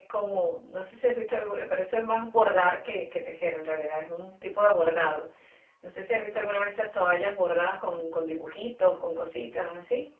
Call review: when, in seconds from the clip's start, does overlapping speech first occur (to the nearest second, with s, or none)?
none